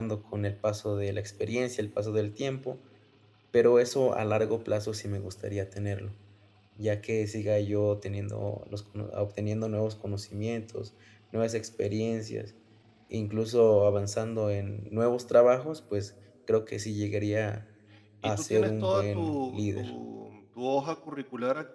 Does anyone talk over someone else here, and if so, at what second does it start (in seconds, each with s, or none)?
18.2 s